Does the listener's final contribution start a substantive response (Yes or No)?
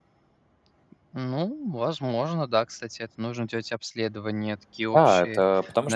Yes